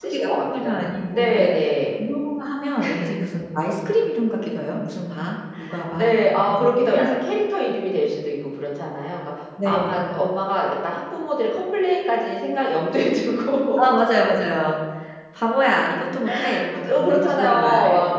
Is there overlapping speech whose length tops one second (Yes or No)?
Yes